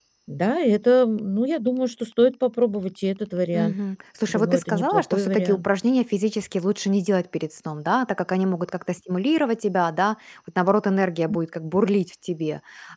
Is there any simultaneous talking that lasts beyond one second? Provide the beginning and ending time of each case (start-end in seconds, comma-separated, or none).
4.3-5.6